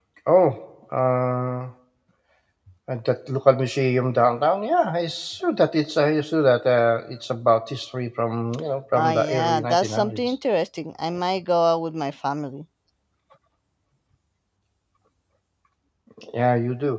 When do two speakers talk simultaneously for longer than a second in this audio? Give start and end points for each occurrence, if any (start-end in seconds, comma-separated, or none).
9.0-10.3